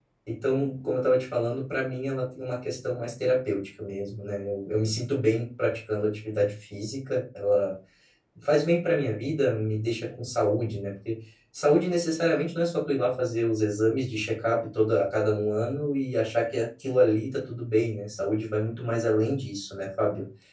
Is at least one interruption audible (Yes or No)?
No